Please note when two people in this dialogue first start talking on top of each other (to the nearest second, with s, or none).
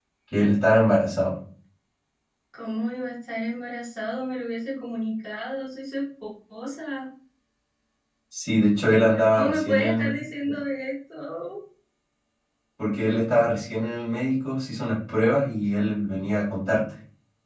9 s